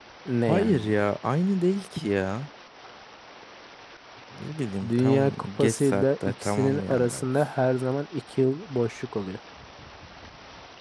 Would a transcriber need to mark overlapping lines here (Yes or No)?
Yes